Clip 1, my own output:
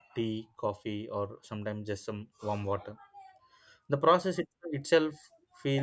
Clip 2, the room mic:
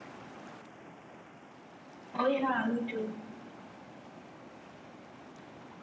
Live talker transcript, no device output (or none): oh yeah me too